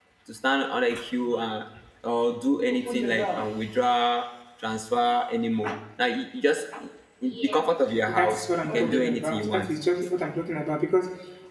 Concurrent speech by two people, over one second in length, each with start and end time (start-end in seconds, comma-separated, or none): 8.1-9.6